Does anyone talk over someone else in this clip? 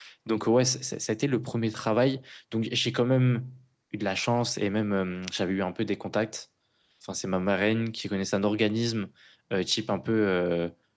No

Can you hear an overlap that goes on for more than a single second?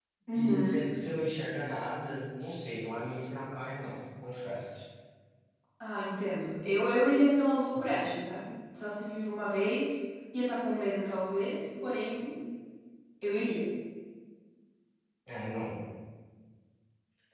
No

